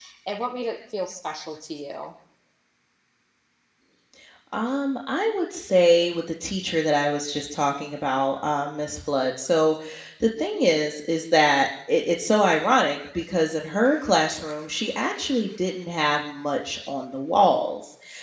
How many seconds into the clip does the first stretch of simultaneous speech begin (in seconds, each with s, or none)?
none